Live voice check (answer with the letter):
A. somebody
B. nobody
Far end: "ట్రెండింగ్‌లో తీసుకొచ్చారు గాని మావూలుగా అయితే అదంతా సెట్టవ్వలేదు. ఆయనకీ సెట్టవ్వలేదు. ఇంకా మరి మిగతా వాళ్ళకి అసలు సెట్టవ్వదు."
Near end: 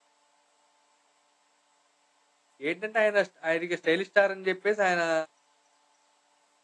A